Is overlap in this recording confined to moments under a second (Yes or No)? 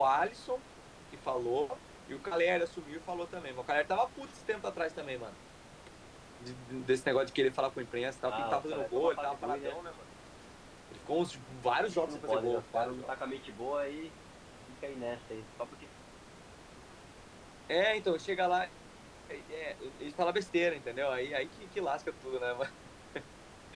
No